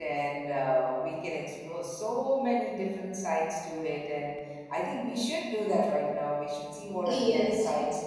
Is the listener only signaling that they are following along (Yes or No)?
Yes